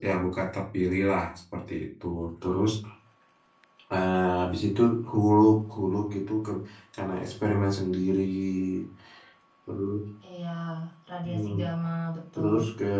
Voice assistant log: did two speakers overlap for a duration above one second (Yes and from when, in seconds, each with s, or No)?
No